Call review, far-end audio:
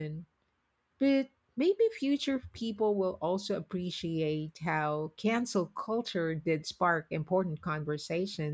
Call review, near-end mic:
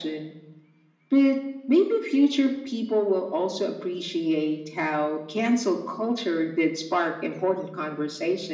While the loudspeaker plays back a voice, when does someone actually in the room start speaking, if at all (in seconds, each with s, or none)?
none